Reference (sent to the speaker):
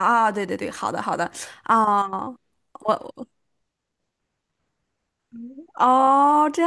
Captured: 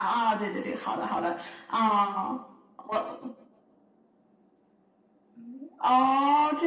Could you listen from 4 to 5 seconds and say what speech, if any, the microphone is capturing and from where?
neither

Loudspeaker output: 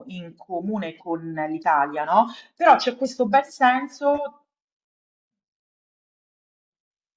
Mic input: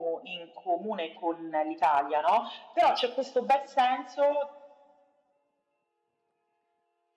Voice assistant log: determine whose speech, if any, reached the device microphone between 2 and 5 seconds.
echo only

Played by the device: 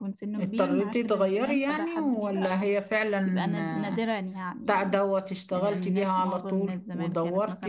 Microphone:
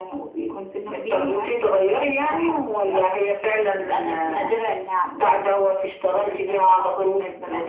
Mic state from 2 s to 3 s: echo only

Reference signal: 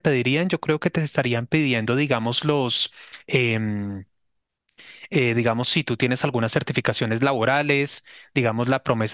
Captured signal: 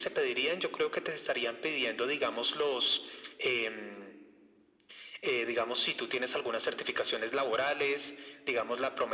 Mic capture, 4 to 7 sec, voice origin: echo only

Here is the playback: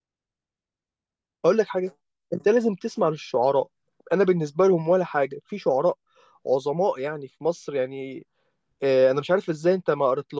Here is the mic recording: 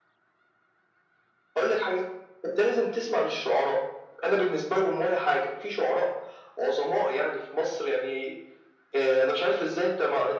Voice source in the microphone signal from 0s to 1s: neither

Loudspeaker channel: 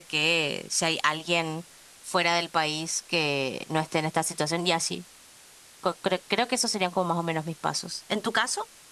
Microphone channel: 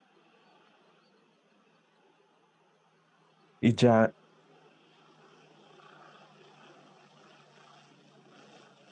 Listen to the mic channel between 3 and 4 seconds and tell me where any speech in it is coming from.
user only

